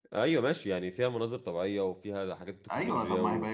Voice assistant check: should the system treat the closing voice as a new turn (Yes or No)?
Yes